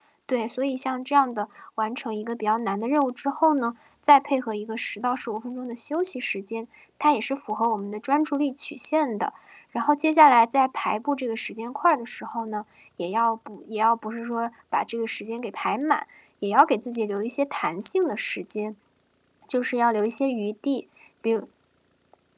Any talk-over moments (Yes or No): No